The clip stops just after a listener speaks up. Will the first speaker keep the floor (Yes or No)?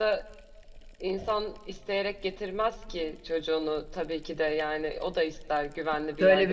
No